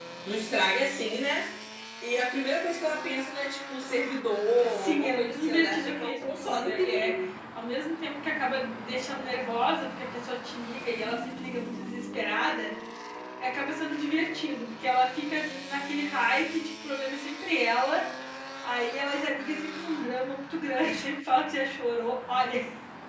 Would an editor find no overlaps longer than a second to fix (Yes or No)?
No